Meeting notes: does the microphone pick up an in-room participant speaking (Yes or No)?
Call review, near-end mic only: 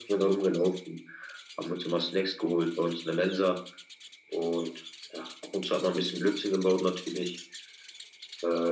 No